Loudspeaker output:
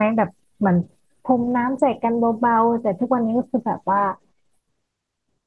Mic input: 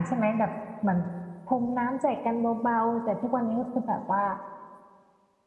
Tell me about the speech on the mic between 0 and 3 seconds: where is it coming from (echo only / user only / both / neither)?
echo only